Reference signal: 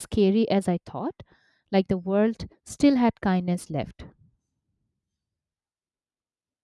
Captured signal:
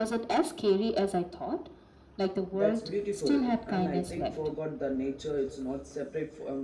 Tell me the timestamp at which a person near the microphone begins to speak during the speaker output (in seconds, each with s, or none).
2.5 s